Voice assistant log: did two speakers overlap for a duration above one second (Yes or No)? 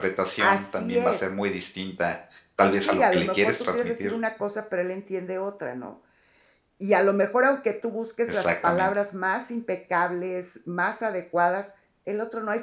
Yes